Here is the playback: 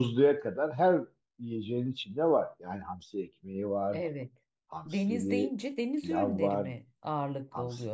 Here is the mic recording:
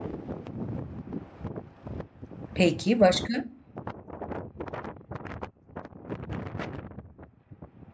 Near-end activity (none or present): present